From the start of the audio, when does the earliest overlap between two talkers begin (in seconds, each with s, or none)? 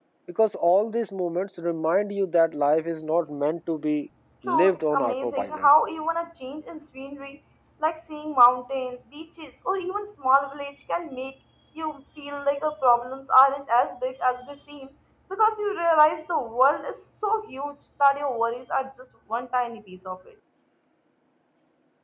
4.5 s